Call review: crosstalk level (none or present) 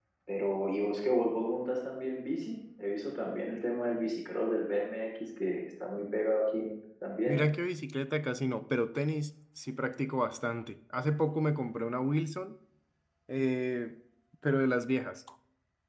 none